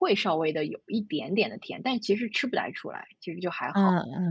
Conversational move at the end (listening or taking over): taking over